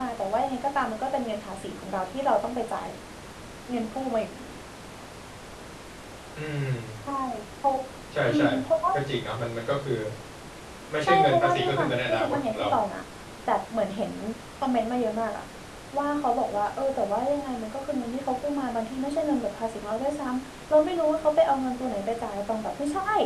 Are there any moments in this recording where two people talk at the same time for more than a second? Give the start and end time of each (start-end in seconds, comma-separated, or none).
11.0-12.7